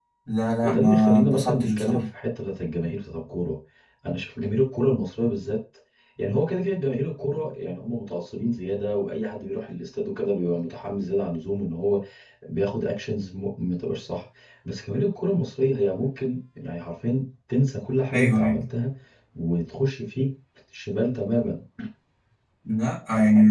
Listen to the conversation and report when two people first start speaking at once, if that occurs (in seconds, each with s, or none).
0.6 s